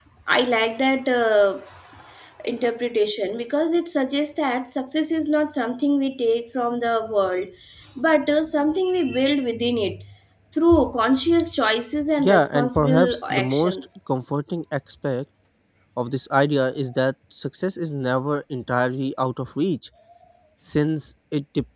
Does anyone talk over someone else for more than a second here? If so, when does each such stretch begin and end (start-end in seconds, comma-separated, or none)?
12.2-13.8